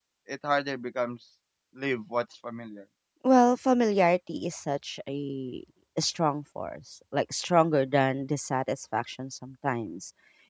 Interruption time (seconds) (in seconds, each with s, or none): none